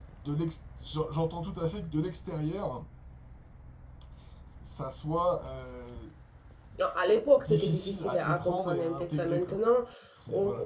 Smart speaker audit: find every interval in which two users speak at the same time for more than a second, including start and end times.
7.4-9.6

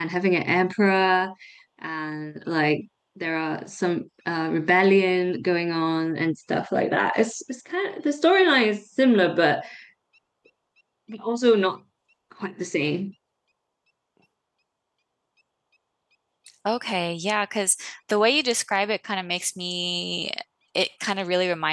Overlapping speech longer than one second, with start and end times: none

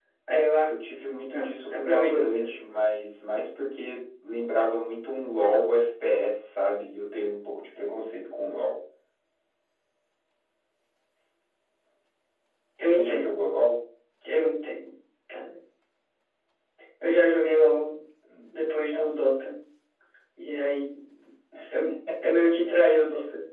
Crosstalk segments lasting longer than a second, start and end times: 1.3-2.5

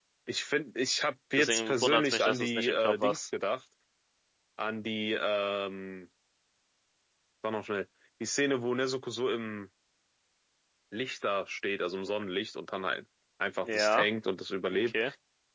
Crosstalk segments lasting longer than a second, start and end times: 1.4-3.3

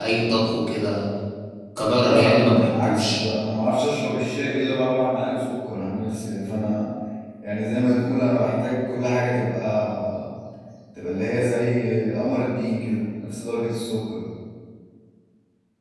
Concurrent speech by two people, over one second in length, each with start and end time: 1.9-3.2

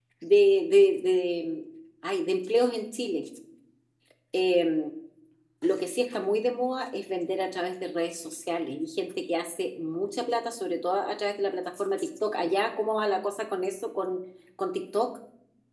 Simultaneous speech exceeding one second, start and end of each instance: none

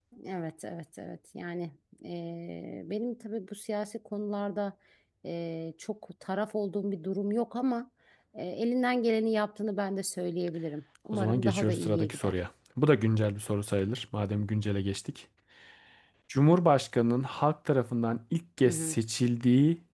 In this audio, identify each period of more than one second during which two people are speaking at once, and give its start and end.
11.1-12.3

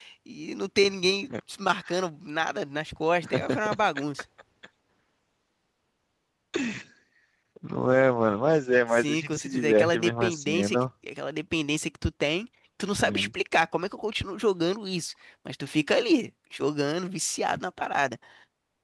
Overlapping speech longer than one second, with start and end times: 8.9-10.8

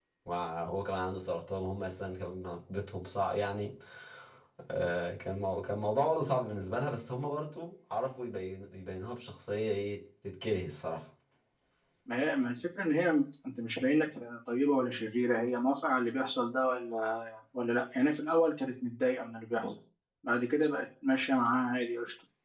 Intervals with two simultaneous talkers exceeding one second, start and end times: none

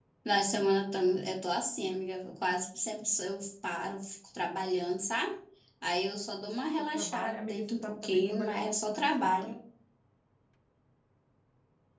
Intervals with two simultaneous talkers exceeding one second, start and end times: 6.8-9.6

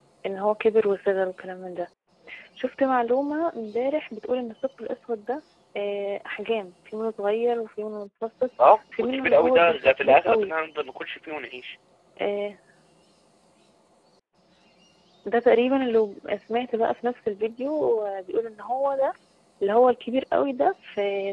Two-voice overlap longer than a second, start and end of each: 9.0-10.5

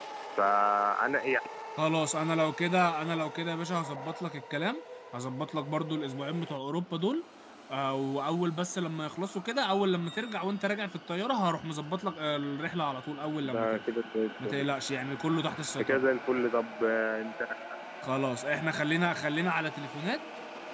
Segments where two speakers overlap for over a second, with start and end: none

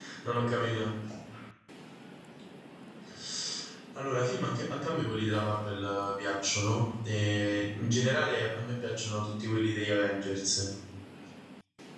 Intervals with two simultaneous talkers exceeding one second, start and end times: none

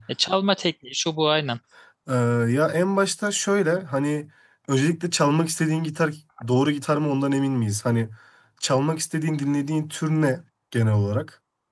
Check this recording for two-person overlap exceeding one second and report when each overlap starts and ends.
none

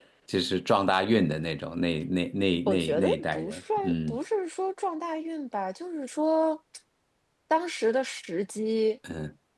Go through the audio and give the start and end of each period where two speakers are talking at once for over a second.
2.7-4.2

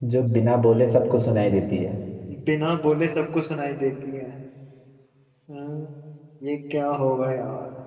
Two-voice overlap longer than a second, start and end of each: none

